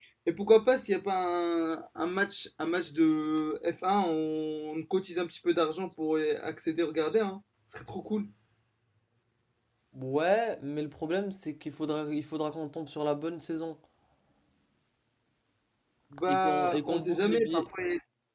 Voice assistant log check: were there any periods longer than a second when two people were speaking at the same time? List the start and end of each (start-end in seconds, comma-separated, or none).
16.3-17.7